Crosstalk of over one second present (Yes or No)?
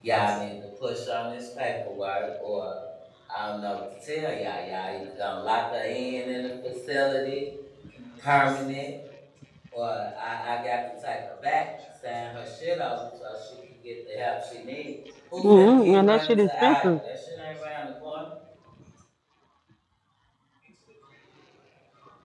Yes